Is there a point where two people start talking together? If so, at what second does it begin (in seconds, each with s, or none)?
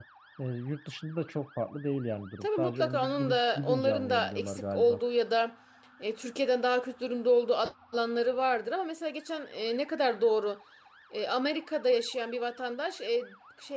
2.4 s